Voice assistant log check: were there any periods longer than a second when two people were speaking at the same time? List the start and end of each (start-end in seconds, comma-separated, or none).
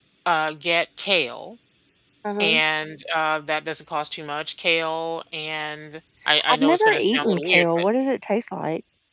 6.5-7.8